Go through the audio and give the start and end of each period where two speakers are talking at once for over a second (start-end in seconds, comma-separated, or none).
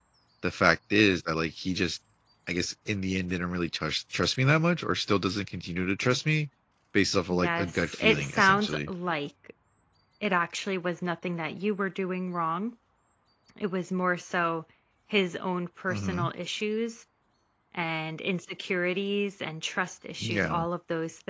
7.3-8.9